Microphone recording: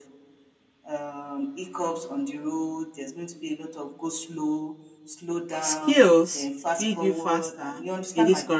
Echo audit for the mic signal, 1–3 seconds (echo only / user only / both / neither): echo only